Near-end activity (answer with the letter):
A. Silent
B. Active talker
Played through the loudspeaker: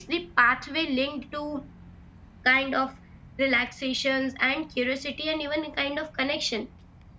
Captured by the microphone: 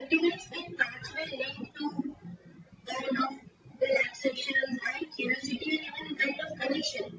A